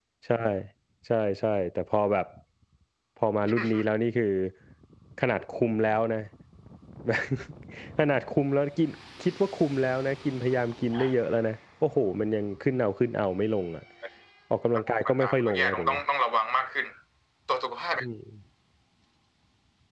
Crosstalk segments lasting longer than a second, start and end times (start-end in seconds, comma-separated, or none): 14.8-16.0